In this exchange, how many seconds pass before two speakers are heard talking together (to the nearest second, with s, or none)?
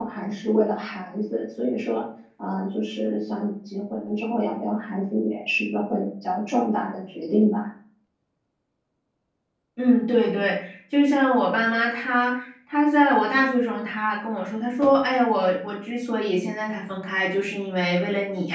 none